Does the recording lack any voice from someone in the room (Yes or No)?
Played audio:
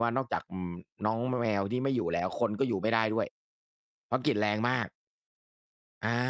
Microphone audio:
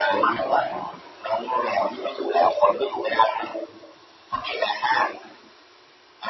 Yes